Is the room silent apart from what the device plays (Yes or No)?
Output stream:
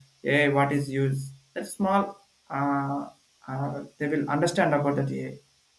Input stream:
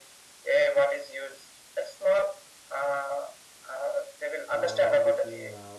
No